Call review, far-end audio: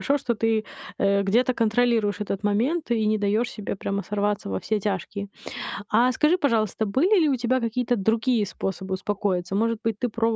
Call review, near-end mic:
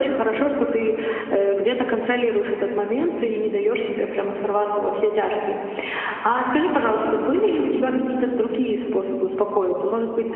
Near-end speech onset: none

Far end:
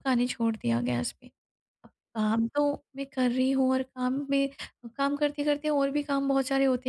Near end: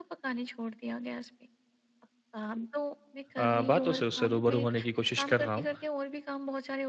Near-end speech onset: 3.4 s

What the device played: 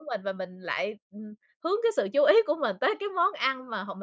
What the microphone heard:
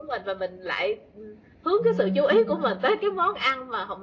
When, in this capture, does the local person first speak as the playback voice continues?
1.8 s

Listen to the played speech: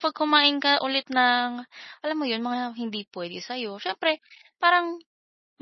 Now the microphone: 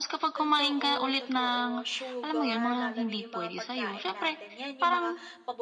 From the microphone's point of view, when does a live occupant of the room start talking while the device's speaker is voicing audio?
0.4 s

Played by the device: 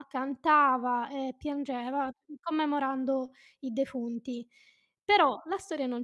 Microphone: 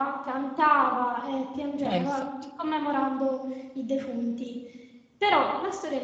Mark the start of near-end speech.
1.8 s

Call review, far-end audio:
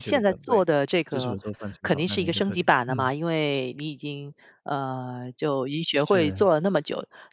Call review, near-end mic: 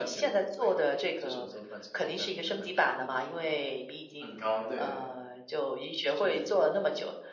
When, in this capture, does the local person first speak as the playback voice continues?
3.3 s

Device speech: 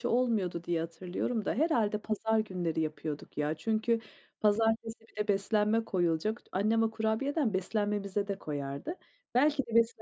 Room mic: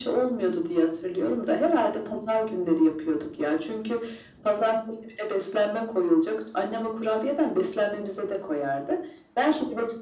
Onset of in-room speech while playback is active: none

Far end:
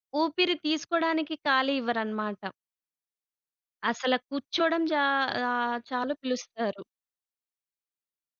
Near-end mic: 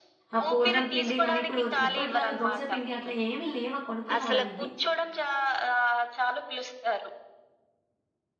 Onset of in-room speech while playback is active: 0.3 s

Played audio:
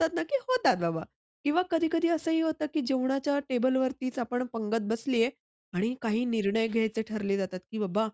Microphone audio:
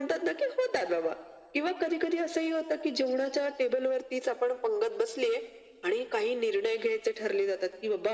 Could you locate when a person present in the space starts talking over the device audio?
none

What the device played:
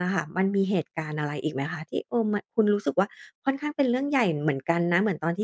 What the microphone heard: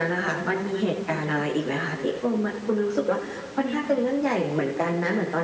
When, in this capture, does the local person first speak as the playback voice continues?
3.6 s

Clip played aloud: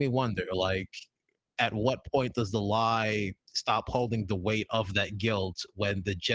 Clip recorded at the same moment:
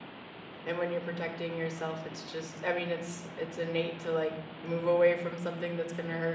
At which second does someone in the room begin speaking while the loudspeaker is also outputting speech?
0.7 s

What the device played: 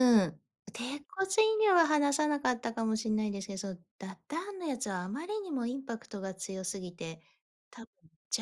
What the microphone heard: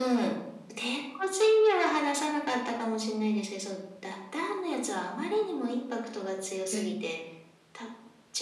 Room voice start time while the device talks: 6.7 s

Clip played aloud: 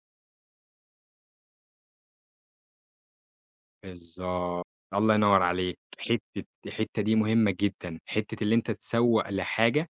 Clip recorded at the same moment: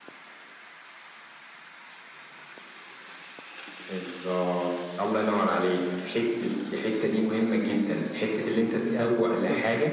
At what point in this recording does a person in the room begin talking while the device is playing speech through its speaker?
8.8 s

